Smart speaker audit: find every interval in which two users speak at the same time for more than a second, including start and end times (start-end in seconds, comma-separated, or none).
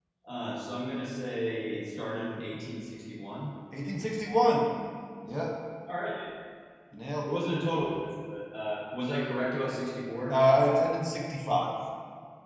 none